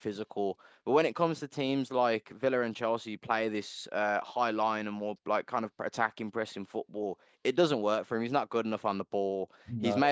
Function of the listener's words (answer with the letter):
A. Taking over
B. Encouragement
B